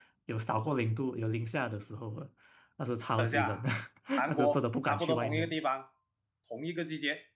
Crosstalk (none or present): present